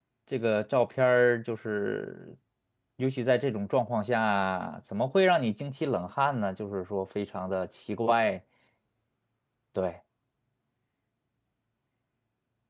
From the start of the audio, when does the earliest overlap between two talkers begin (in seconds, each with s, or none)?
none